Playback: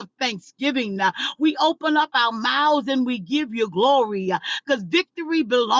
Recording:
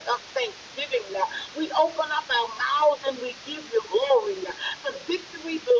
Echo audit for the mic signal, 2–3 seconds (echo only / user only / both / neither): echo only